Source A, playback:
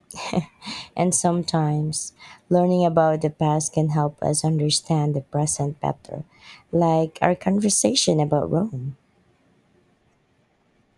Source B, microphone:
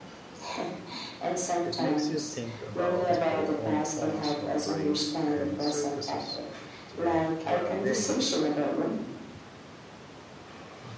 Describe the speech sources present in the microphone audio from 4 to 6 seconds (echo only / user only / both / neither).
both